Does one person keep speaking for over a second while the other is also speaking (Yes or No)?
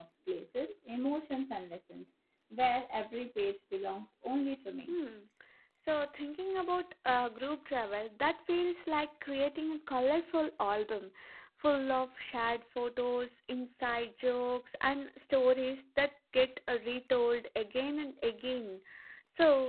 No